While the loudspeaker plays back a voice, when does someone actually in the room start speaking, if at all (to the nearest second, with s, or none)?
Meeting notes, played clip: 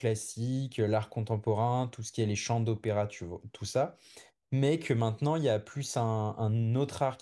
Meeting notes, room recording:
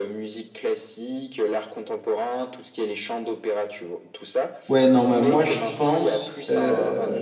5 s